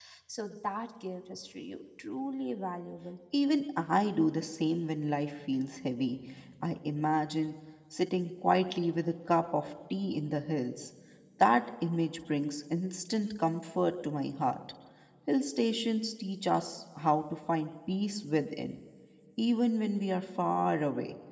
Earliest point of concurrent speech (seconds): none

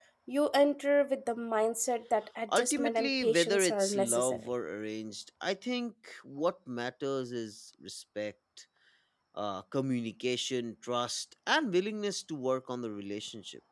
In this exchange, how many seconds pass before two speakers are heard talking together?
2.5 s

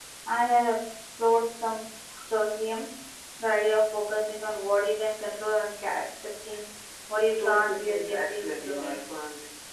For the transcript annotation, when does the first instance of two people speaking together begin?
7.2 s

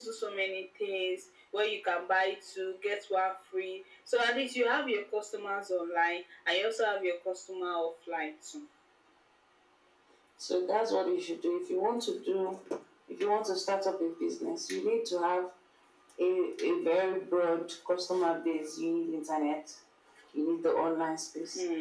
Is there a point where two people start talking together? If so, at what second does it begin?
none

